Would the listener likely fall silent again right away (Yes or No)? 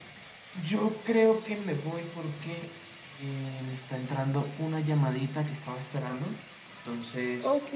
Yes